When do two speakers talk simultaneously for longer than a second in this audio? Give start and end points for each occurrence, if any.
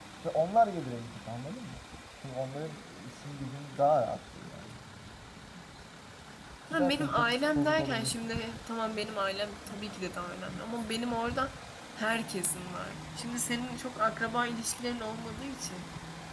6.7-8.1

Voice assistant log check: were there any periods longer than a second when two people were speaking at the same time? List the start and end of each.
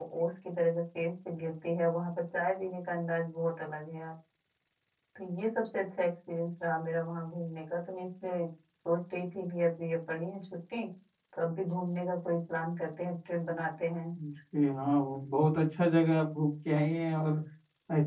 none

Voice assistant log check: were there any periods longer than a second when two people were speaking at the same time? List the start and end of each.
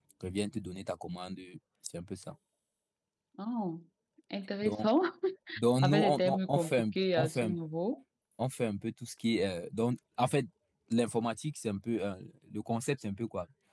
5.8-7.5

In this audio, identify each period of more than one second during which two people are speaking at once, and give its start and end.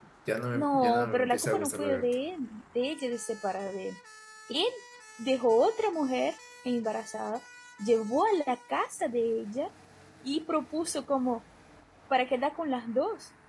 0.5-2.2

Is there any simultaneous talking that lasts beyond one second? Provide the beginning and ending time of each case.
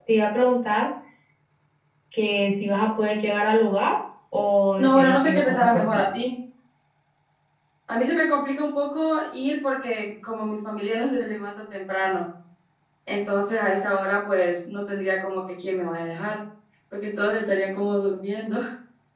4.8-6.0

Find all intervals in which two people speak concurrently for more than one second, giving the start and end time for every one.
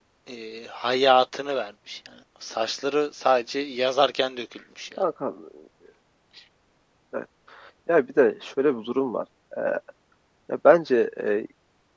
none

